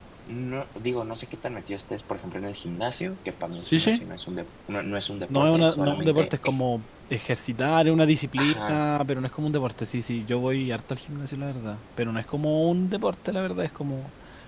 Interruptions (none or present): present